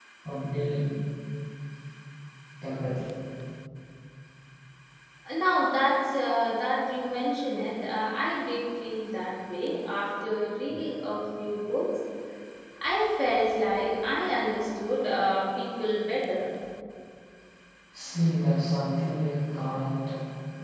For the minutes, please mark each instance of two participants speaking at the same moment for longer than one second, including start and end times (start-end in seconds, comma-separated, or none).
none